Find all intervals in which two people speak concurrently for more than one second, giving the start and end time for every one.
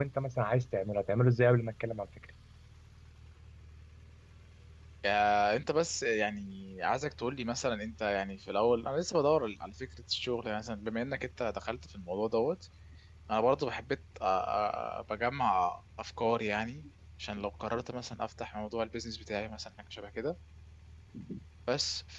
none

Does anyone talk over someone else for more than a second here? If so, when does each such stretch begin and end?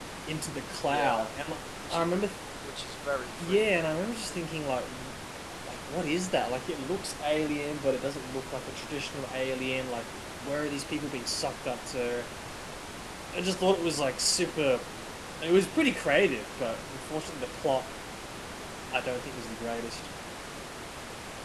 none

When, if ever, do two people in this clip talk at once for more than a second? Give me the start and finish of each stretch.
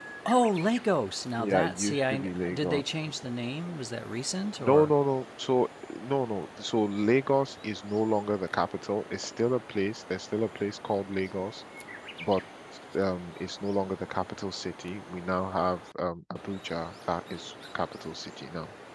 1.4-2.8

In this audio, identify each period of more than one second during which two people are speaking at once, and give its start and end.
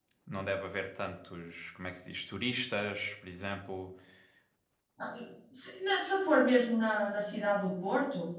none

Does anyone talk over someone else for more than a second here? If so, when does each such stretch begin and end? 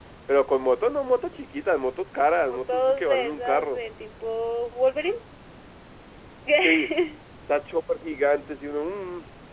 2.5-3.8

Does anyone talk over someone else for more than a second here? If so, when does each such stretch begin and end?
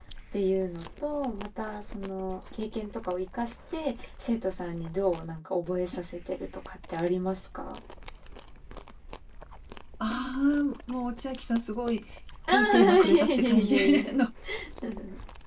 12.5-14.2

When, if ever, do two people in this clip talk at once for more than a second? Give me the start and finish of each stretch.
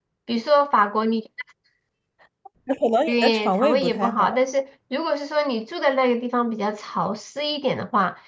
3.1-4.4

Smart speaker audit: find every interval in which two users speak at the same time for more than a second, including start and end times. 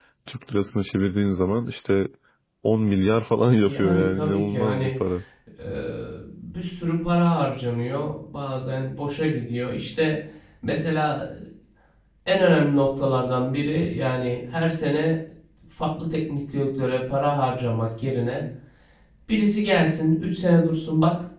3.6-4.9

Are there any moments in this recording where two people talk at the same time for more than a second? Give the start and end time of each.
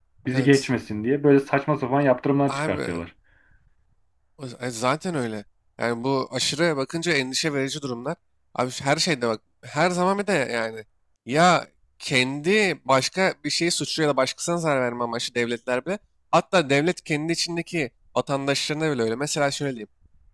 none

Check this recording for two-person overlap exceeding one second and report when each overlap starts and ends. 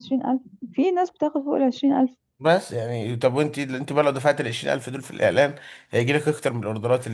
none

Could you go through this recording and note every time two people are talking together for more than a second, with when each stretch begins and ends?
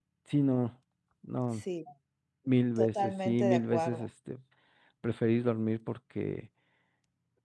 2.8-4.1

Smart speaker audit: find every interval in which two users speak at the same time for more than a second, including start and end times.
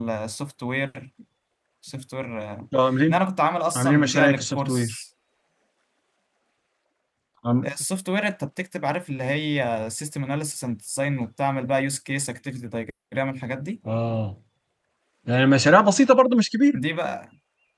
3.8-5.0

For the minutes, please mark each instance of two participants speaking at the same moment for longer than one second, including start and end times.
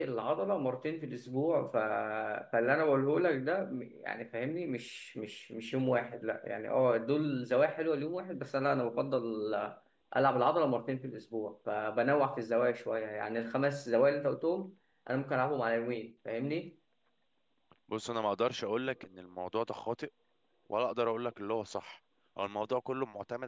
none

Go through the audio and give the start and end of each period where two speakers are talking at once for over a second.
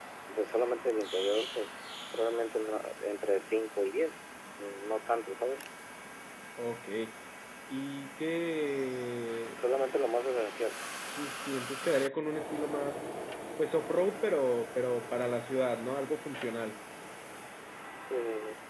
none

